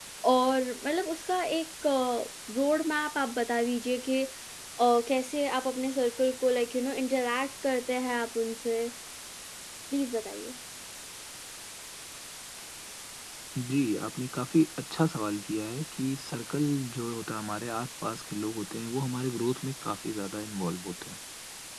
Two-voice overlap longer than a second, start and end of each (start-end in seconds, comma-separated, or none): none